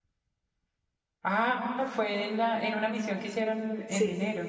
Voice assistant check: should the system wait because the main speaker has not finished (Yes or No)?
No